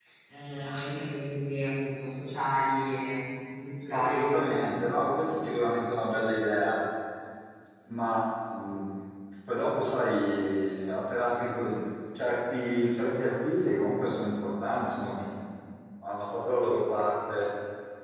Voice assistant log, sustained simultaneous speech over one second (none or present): none